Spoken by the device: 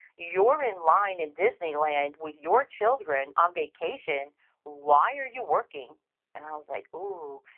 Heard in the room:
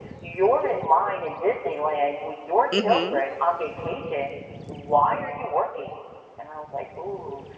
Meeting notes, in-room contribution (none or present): present